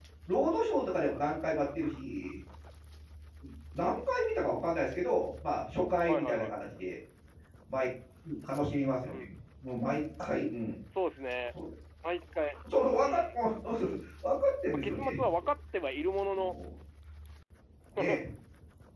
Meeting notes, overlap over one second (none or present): none